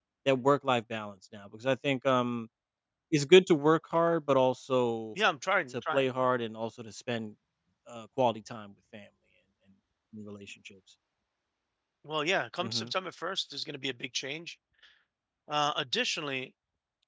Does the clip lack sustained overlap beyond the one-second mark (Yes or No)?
Yes